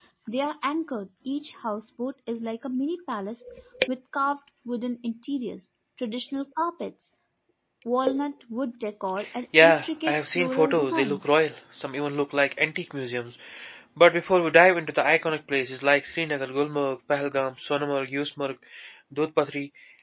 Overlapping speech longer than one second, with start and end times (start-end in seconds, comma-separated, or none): 9.6-11.4